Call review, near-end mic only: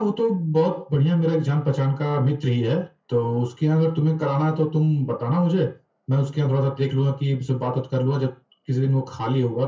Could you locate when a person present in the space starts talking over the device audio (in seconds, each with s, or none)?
none